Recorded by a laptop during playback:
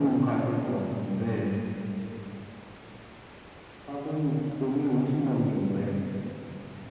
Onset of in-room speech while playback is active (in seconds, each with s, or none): none